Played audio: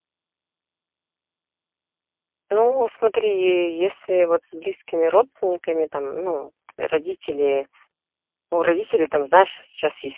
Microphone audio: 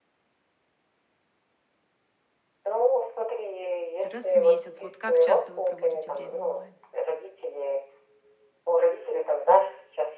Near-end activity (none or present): present